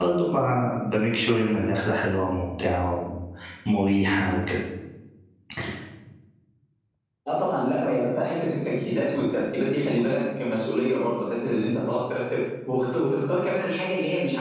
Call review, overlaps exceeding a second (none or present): none